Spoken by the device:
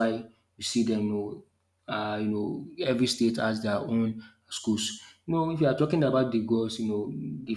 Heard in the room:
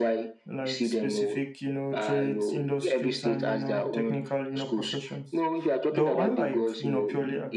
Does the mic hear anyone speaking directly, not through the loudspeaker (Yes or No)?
Yes